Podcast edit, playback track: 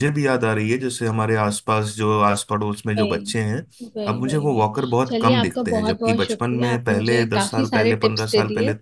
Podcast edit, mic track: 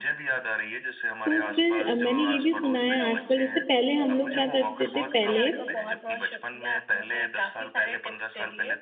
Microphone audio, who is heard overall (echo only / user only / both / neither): both